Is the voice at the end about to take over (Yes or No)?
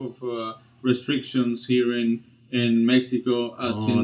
Yes